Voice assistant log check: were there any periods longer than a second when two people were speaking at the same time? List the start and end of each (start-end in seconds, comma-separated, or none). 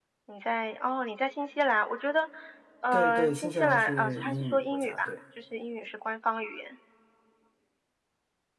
2.9-5.1